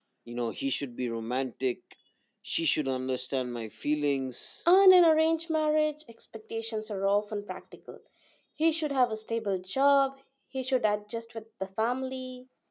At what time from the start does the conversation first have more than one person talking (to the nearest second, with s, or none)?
none